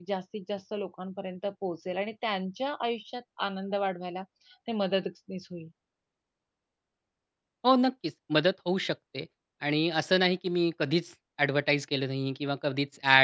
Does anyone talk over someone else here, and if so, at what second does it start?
none

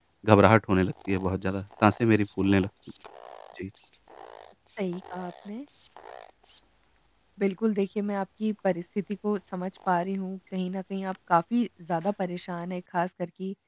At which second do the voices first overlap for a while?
none

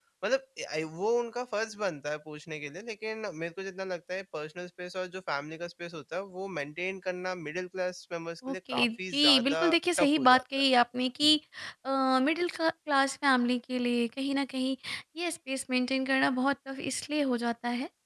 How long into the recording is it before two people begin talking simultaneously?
8 s

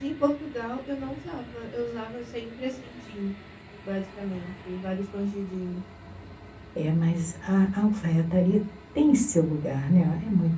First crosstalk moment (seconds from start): none

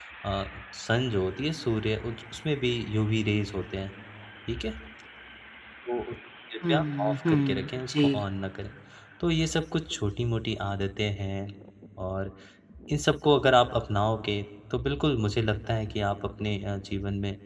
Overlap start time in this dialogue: 7 s

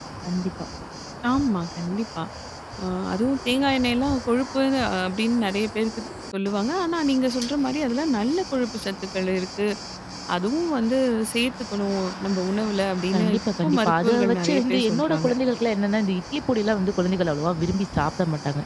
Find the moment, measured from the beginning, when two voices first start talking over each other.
13 s

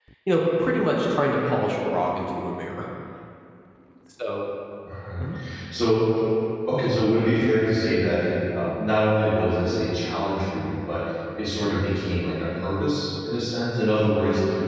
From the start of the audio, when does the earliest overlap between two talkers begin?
none

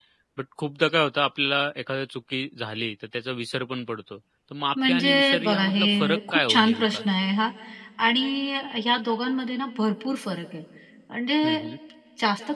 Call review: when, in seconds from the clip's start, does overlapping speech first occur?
5 s

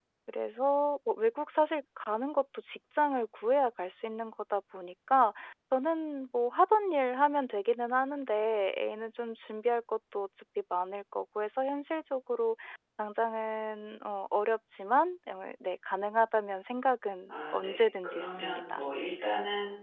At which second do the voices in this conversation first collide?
17 s

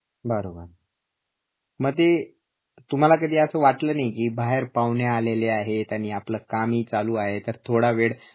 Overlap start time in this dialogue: none

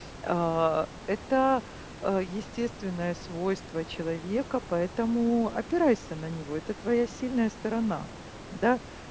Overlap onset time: none

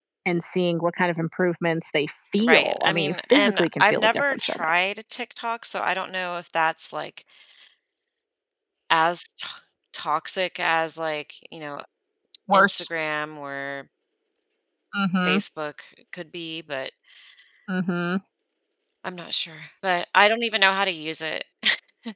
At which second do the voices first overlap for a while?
2 s

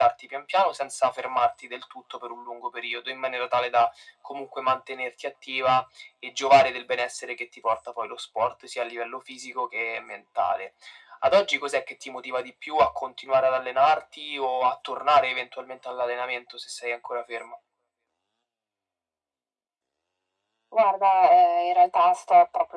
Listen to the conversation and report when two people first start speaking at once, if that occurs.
none

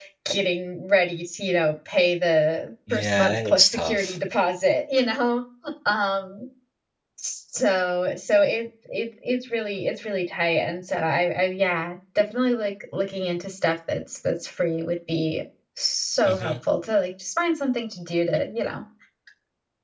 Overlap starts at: 3 s

